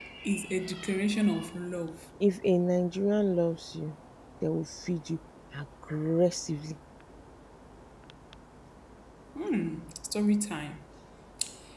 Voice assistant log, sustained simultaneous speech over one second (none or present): none